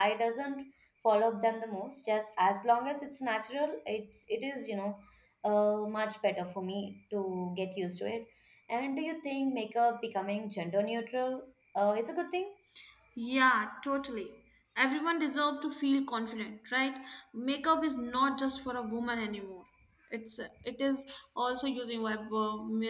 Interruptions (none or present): none